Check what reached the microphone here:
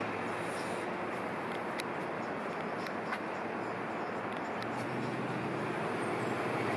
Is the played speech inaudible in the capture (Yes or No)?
Yes